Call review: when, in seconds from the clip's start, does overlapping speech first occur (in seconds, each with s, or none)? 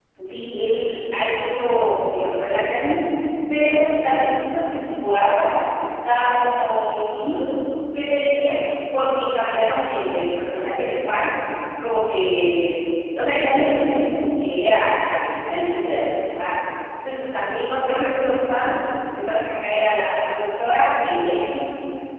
none